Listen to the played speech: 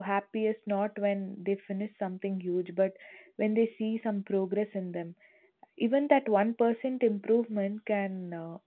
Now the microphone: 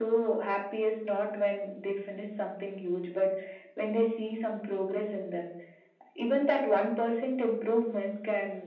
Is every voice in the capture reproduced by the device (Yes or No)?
Yes